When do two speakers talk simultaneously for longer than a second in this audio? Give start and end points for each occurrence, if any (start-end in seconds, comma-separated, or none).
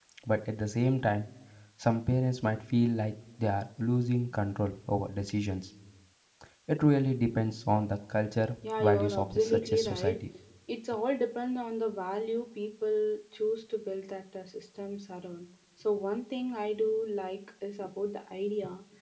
8.8-10.2